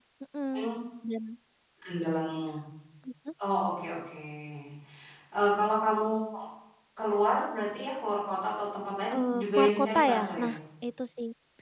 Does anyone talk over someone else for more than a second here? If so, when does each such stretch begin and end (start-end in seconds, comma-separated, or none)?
9.1-10.6